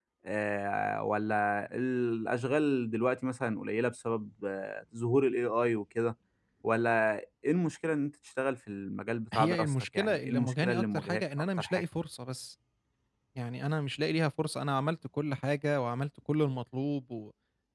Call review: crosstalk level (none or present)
present